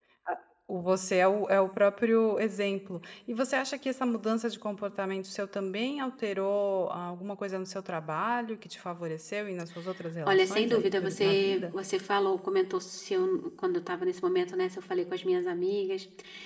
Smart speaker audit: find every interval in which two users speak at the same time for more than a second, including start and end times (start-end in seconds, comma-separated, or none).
10.3-11.7